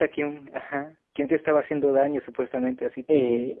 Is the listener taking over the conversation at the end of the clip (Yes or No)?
Yes